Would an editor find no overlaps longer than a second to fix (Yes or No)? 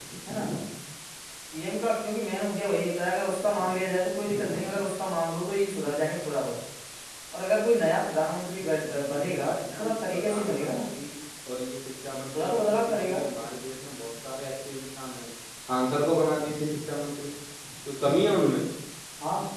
No